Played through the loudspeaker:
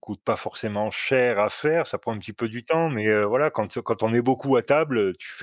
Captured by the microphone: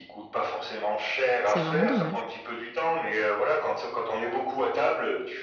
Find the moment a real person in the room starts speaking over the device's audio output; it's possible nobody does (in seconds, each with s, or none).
1.4 s